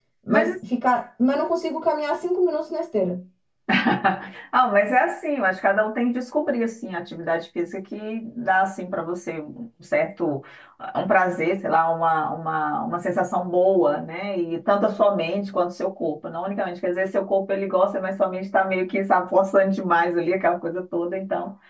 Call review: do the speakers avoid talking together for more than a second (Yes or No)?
Yes